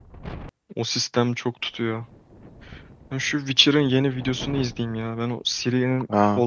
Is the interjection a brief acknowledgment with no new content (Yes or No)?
No